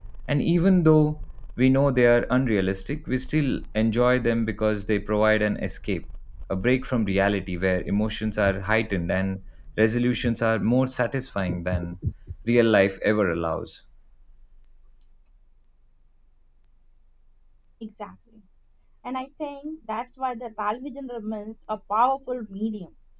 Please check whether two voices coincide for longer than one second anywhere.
No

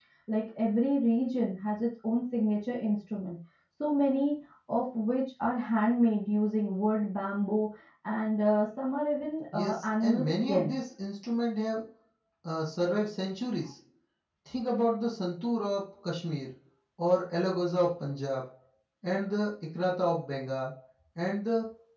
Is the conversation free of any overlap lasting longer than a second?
No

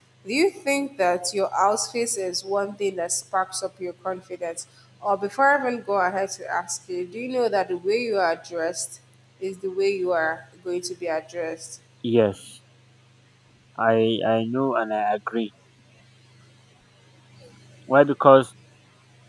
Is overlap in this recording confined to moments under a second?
Yes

